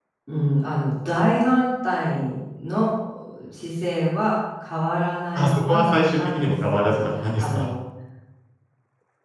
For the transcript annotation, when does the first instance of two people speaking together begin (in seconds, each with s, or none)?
5.3 s